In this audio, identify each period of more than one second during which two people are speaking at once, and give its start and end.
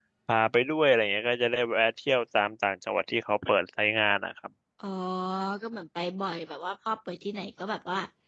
none

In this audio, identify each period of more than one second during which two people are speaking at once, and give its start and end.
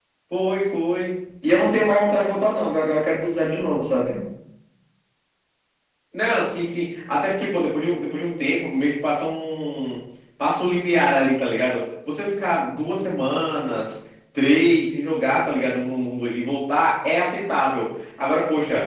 none

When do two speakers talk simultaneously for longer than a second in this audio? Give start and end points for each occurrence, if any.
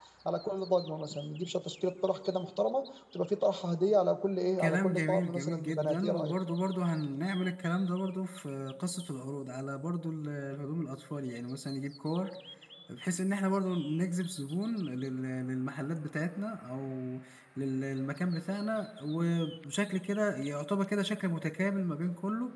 4.6-6.4

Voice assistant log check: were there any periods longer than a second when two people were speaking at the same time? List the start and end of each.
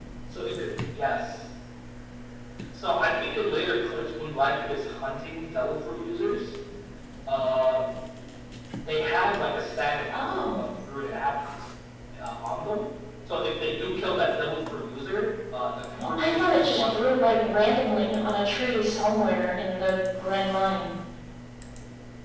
15.9-17.1

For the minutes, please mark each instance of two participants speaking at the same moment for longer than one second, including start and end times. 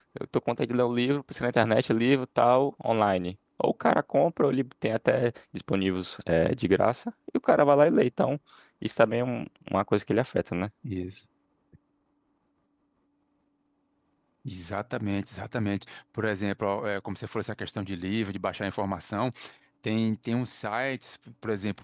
none

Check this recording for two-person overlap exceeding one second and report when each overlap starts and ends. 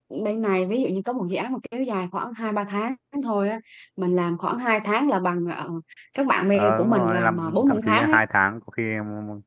6.5-8.2

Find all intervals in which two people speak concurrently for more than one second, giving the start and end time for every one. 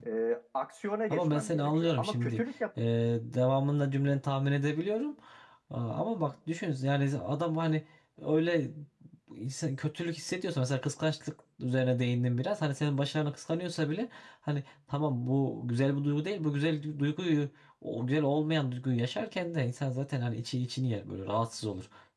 1.1-2.4

